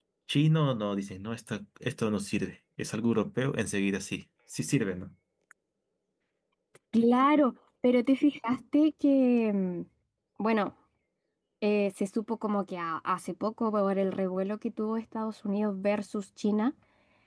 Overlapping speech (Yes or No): No